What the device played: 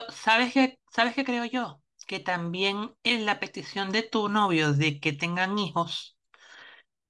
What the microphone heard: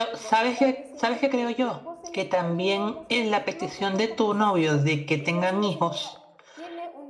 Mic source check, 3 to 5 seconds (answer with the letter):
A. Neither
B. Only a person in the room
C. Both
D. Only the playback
C